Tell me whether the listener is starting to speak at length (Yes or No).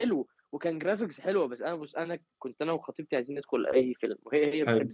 No